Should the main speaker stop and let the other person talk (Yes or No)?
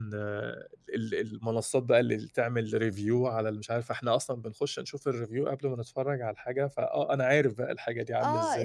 Yes